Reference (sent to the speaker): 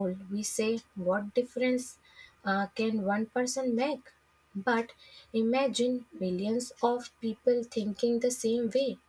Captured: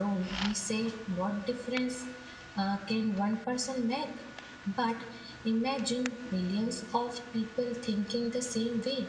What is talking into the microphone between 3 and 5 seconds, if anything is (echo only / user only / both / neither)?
echo only